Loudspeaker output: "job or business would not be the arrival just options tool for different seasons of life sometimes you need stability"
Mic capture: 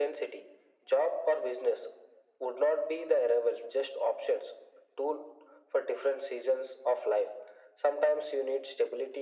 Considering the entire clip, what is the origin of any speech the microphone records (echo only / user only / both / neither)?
echo only